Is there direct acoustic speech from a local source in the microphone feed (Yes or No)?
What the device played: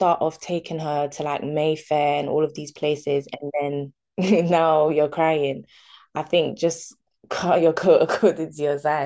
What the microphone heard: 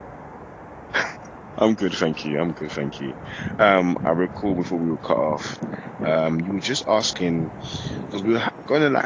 Yes